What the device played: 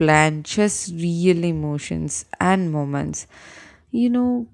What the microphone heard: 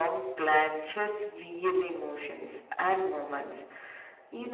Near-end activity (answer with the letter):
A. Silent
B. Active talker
A